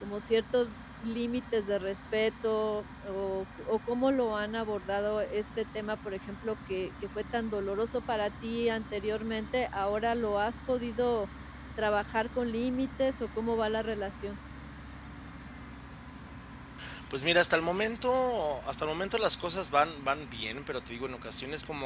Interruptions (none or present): none